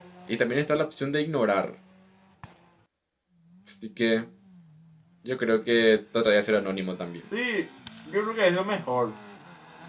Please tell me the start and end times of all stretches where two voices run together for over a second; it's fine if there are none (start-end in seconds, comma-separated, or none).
none